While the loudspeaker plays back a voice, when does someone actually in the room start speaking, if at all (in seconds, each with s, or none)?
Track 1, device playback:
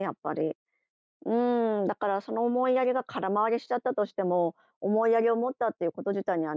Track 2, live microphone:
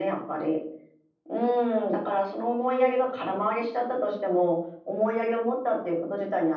none